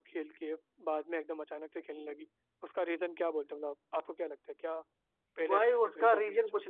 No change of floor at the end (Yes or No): No